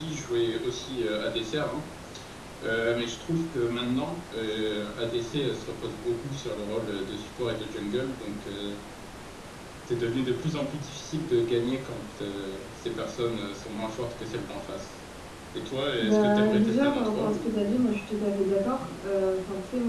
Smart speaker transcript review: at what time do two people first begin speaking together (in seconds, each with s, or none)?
16.0 s